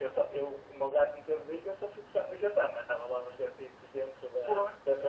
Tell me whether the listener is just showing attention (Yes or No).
Yes